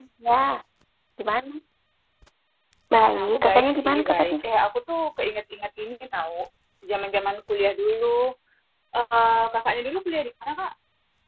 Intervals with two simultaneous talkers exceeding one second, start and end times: 3.1-4.3

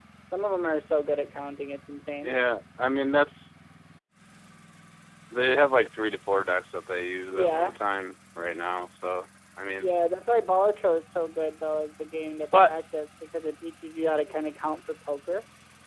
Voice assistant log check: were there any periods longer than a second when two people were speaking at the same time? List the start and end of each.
none

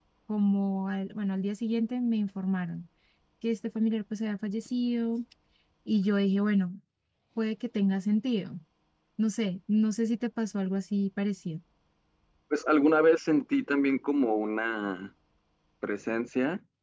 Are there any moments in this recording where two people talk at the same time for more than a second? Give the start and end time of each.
none

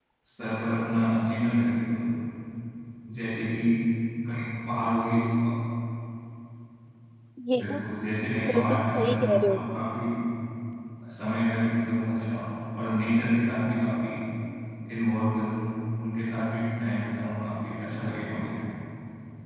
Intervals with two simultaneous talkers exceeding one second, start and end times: 8.5-9.9

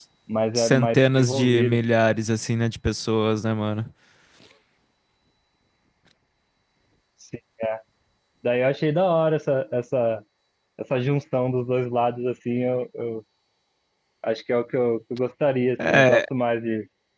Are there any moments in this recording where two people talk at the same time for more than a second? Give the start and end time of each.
0.6-1.8

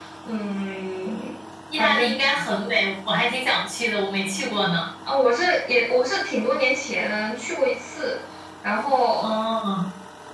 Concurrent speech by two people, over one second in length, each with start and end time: none

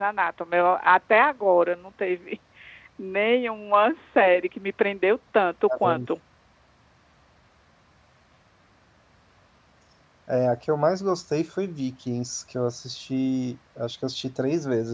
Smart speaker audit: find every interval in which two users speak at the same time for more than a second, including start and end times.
none

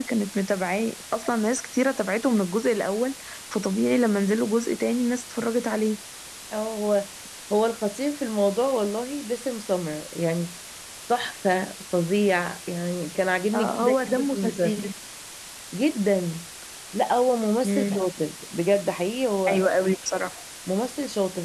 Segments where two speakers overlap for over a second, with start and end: 13.5-14.8

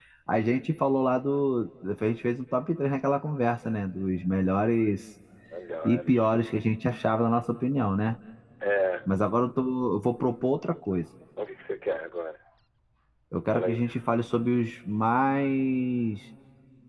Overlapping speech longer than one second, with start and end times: none

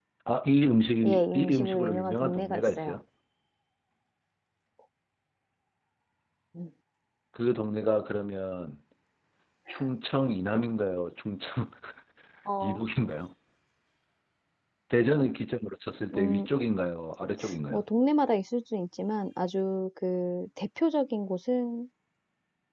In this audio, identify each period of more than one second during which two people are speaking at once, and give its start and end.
1.0-3.0

